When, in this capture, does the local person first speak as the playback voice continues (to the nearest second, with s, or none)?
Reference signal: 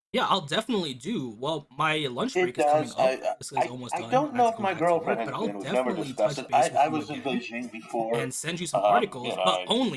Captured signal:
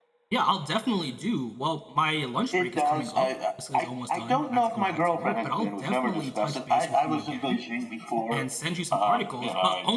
none